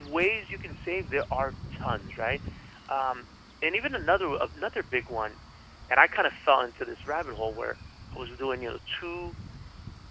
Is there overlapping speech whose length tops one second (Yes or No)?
No